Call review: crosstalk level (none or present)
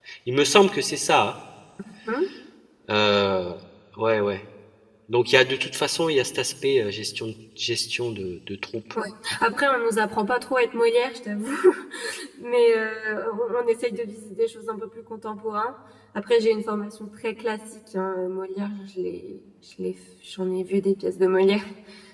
none